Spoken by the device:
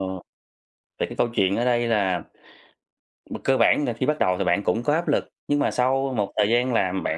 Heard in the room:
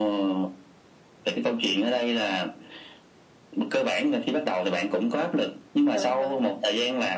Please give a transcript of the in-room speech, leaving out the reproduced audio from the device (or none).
Đúng, đúng.